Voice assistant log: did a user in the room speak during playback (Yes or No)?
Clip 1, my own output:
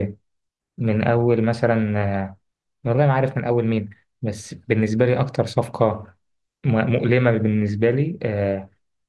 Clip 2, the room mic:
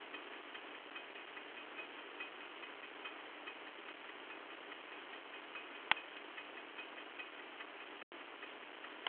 No